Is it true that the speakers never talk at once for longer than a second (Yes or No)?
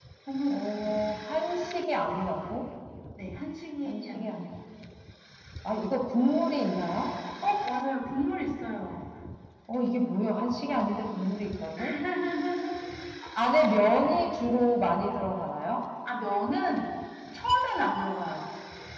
Yes